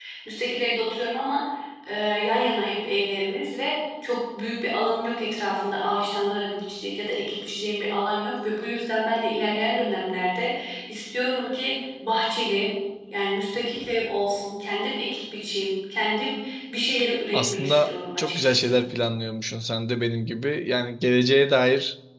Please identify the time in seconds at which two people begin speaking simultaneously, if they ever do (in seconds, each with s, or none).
17.3 s